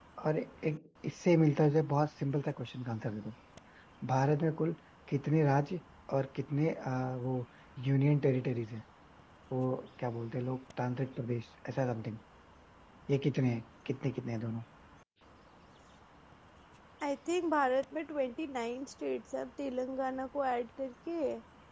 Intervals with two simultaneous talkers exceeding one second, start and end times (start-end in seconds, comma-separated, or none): none